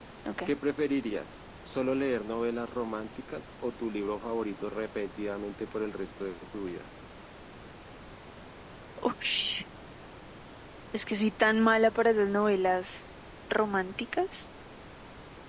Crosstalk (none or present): none